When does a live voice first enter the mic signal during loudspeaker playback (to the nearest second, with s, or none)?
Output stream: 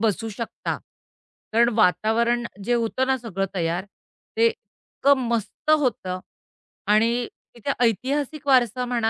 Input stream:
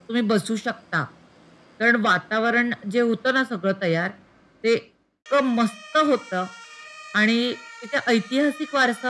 none